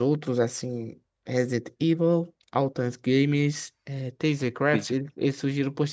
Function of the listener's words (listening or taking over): listening